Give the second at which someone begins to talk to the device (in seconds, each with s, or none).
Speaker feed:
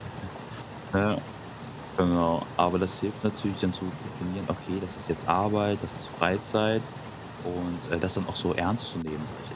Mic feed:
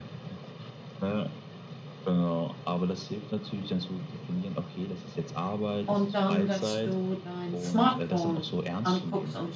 5.8 s